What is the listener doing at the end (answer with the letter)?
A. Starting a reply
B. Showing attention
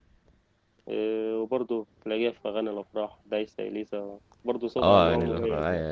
A